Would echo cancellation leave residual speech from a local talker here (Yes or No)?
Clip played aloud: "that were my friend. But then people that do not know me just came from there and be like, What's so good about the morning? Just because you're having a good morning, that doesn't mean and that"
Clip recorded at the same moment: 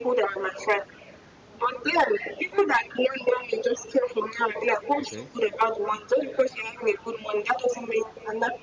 Yes